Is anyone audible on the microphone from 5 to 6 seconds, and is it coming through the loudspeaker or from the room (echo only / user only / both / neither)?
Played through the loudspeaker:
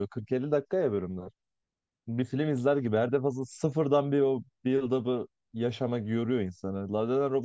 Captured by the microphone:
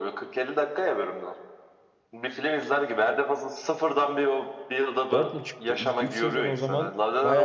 both